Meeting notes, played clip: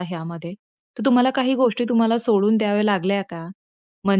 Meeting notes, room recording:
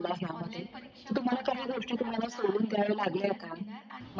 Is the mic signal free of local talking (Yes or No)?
No